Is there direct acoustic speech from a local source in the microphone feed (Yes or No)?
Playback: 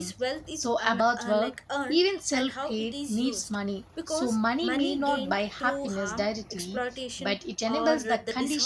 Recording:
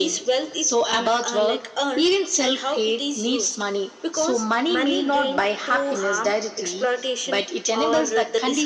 No